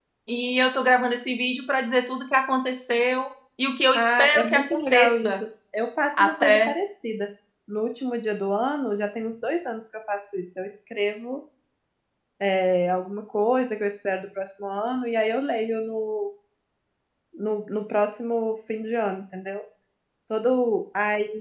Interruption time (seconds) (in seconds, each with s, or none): 3.9 s